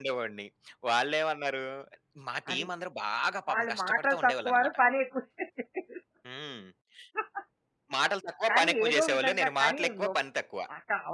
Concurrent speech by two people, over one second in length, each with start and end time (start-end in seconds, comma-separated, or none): 3.5-4.8, 8.5-10.2